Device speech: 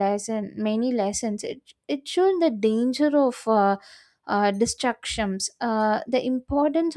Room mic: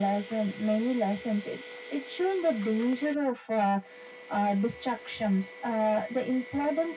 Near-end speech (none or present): none